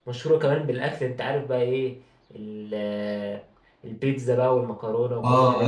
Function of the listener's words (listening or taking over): taking over